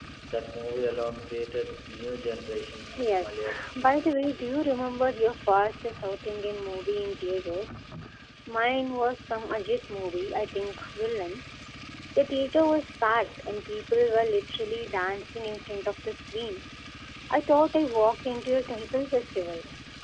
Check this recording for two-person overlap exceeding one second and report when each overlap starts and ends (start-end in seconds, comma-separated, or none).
3.0-4.3